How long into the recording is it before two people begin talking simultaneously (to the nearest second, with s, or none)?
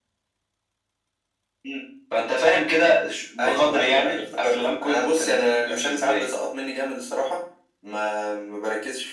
3 s